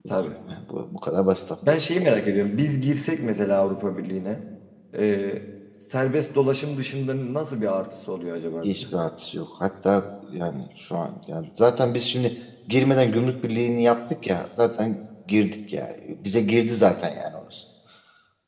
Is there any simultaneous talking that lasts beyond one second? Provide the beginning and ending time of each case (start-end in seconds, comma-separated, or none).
none